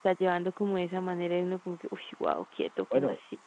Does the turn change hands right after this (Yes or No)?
Yes